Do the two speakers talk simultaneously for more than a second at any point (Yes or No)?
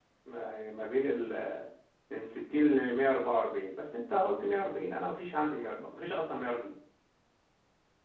No